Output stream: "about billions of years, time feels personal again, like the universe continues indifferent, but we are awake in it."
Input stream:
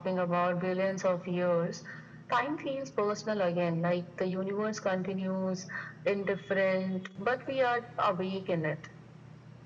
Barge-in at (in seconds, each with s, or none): none